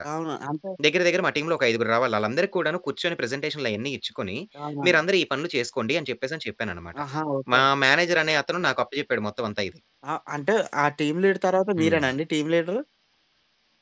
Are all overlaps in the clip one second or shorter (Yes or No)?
Yes